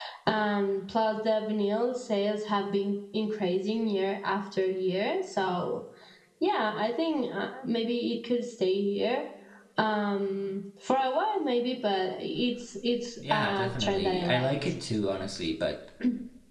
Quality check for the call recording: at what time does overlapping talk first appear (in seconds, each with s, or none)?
13.1 s